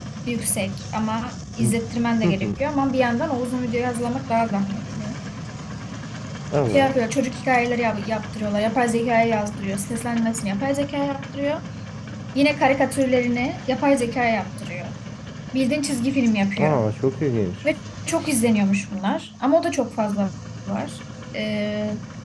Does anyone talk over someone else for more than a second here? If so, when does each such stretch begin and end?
none

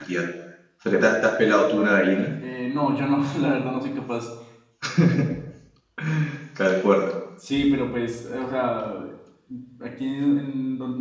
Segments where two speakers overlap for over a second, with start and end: none

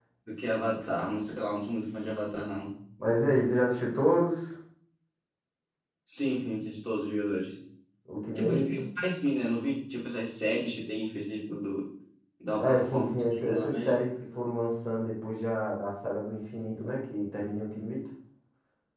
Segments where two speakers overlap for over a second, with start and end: 12.6-13.9

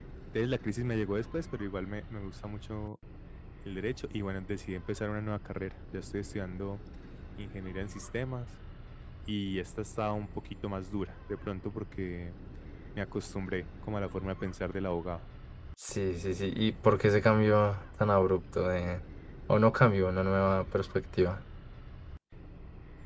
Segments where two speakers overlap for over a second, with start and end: none

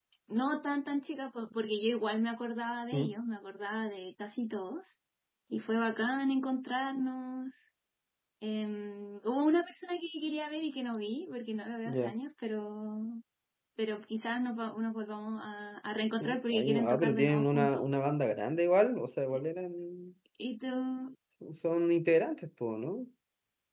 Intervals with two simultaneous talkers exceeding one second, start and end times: 16.2-17.8

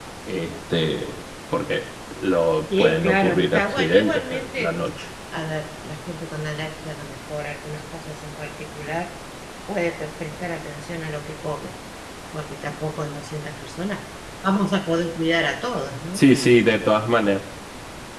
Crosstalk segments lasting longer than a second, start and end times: 2.8-4.7

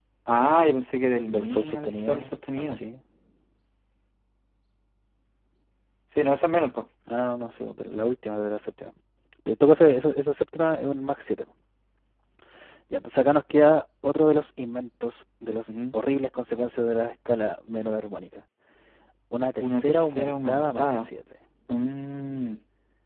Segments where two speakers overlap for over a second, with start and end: 1.3-2.8, 19.6-21.1

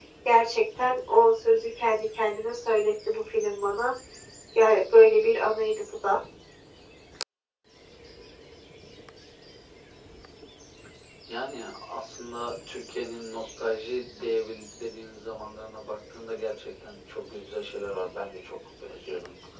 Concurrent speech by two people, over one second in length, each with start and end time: none

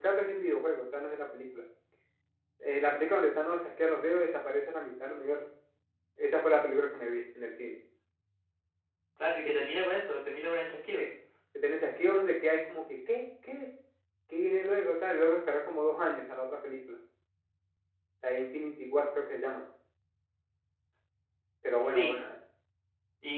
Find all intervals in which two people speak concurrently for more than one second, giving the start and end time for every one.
none

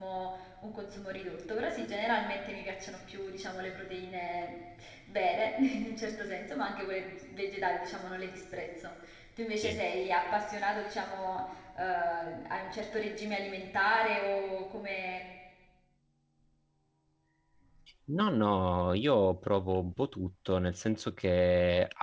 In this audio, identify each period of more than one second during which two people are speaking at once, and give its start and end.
none

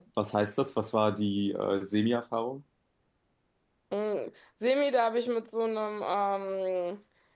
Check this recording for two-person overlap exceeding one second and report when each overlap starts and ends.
none

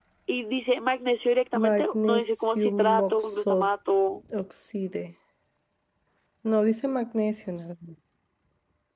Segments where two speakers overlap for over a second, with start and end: 1.6-3.7

